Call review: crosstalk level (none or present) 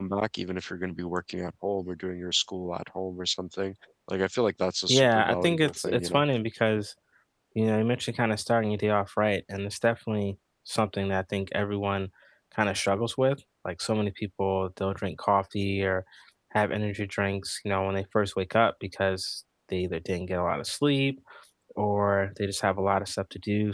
present